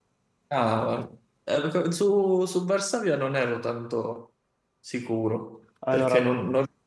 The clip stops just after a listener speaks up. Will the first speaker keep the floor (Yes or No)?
Yes